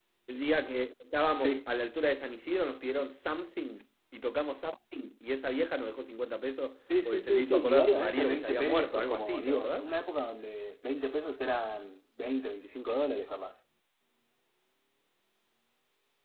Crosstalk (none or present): present